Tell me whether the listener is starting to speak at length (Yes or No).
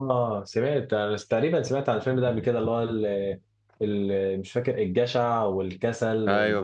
Yes